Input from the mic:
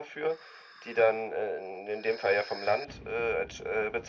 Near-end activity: none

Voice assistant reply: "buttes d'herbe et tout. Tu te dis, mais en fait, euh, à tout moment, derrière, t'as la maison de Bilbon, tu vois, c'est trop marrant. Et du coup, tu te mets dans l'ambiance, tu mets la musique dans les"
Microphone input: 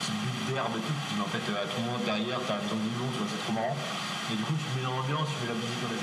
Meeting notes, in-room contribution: none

